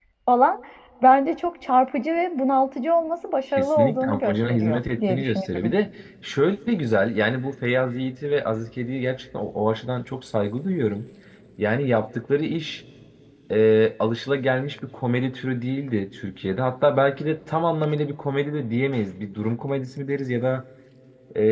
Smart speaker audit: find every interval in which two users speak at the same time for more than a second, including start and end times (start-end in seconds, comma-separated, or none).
3.6-5.6